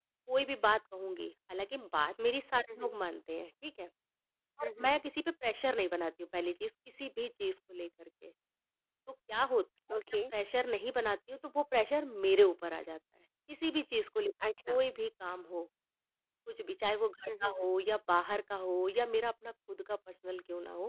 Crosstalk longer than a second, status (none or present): none